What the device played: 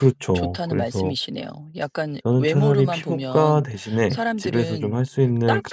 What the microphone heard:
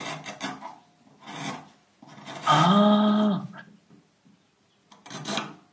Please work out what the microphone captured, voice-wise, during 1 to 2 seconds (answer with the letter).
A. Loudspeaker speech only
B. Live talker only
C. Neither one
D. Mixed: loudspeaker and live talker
C